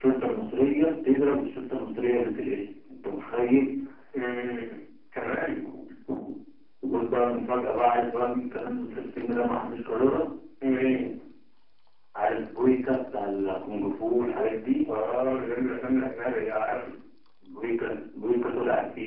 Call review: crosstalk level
none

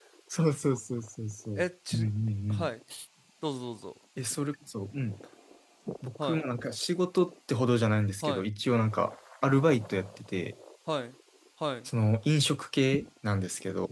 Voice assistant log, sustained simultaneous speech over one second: none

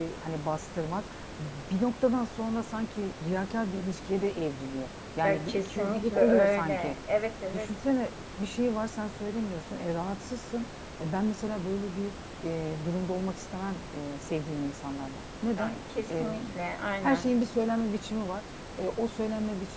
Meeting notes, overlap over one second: present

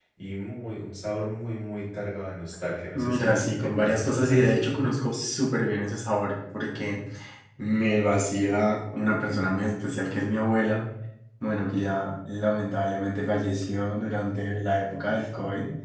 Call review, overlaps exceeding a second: present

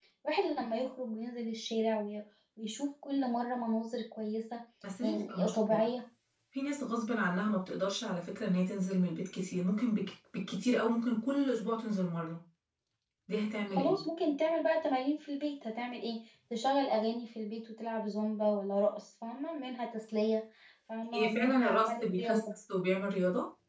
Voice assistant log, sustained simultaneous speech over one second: present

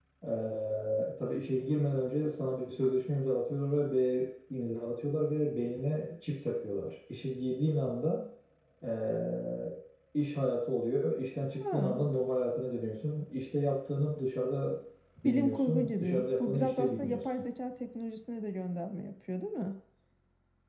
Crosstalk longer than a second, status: present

